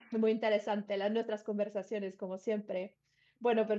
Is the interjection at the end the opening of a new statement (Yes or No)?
No